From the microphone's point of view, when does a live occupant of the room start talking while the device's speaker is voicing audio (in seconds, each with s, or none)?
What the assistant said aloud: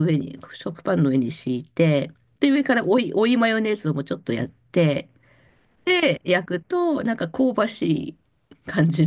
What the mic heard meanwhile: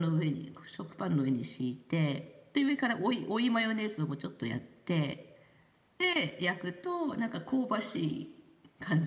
none